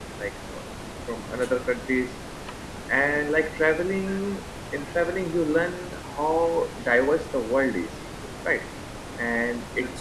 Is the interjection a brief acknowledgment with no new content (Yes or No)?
Yes